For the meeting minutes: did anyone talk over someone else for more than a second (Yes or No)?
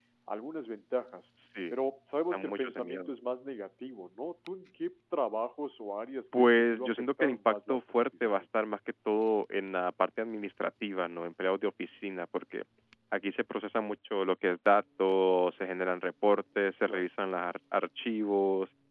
Yes